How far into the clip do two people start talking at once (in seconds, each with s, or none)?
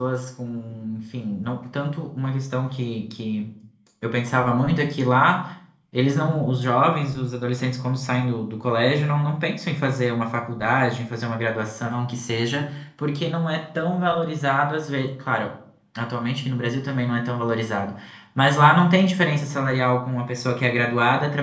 none